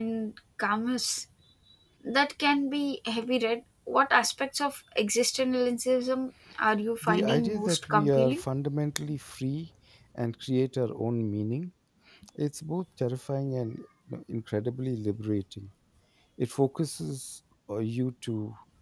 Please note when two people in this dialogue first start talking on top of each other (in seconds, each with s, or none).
7.0 s